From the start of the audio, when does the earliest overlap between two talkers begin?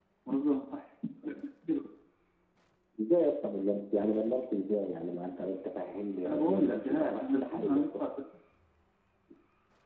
6.2 s

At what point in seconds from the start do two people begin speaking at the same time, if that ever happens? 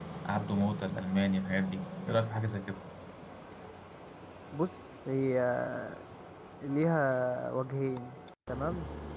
none

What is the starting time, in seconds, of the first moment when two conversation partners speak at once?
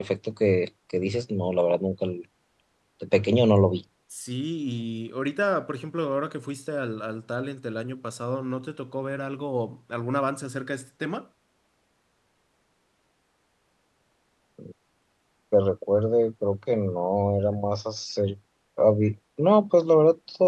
none

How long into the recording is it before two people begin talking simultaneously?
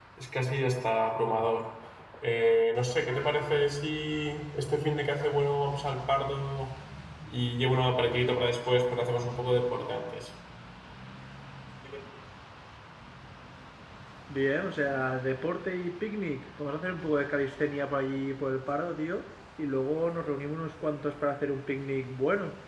none

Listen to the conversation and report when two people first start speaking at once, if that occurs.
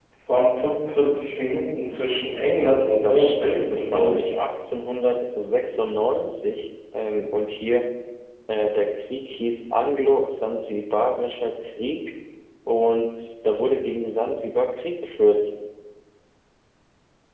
3.0 s

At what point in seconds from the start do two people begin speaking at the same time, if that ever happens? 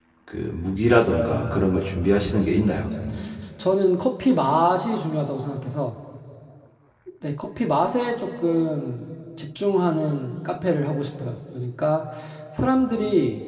none

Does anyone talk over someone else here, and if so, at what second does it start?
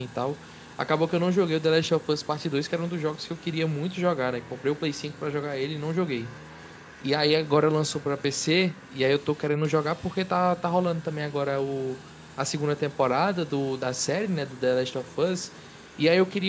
none

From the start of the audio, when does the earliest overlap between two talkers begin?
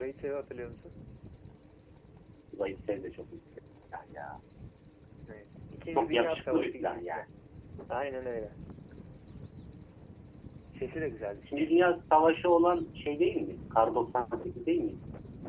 6.0 s

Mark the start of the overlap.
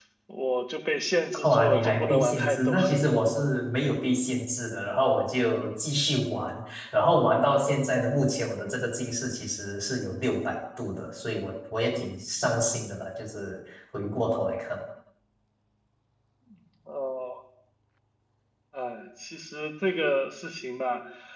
1.3 s

